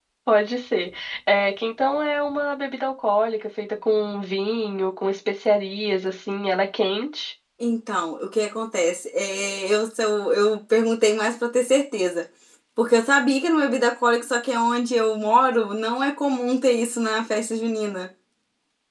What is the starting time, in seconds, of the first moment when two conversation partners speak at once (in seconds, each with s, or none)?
none